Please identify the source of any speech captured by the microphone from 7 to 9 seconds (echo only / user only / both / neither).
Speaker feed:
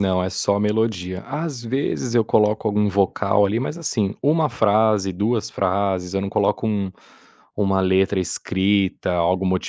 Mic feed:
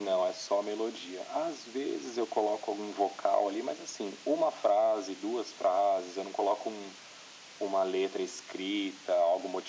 echo only